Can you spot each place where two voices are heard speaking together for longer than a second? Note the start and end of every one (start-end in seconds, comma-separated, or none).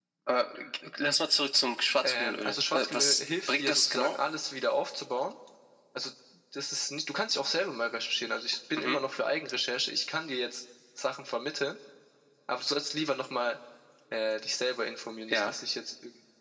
2.0-4.2